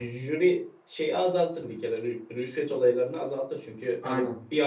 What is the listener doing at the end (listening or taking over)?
listening